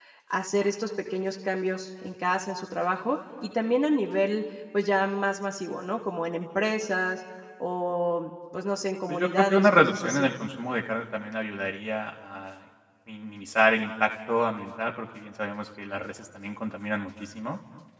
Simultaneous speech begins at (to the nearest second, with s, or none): 9 s